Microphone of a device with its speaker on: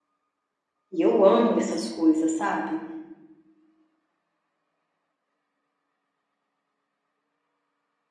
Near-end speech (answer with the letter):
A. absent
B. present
B